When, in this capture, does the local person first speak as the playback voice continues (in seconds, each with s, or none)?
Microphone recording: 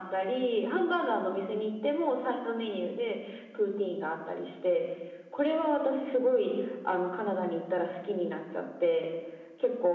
none